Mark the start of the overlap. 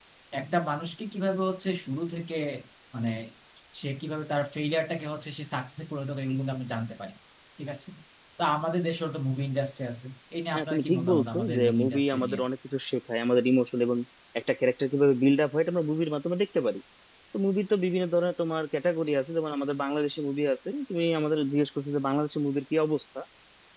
10.5 s

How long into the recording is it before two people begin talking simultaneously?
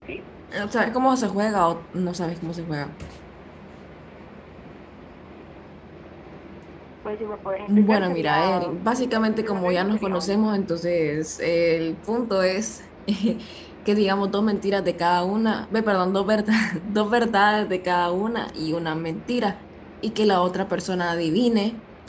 7.7 s

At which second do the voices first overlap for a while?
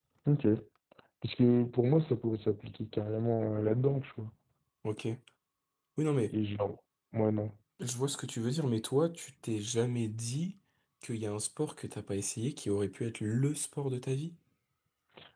none

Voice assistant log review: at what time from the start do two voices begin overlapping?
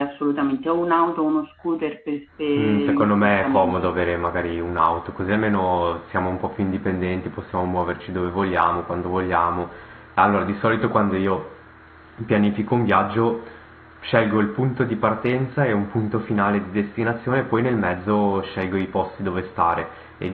2.4 s

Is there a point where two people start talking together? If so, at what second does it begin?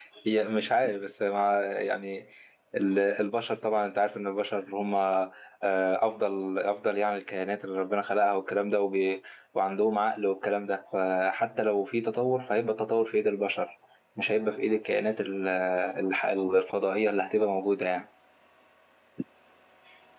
none

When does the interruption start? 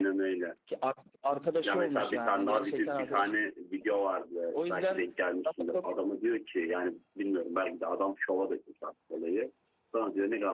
1.6 s

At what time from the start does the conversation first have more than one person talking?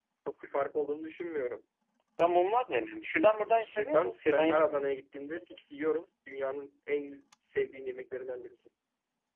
3.5 s

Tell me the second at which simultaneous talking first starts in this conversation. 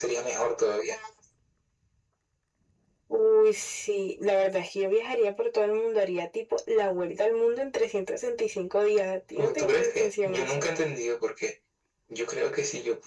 9.4 s

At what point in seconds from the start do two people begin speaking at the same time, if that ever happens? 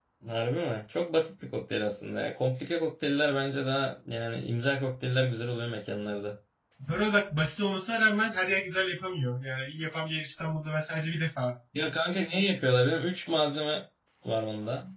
none

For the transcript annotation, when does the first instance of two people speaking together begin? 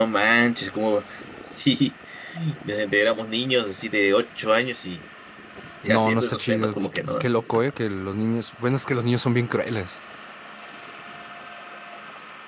5.9 s

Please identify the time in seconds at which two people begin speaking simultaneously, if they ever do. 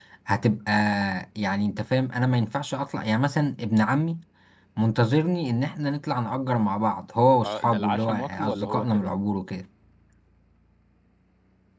7.4 s

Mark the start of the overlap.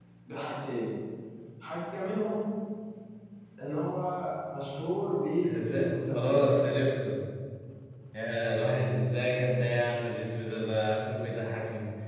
5.4 s

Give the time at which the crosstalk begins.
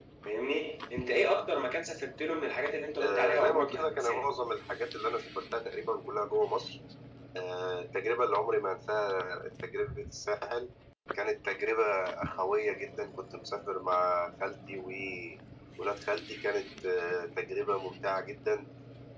3.0 s

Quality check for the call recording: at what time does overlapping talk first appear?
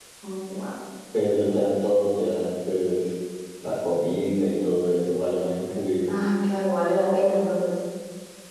none

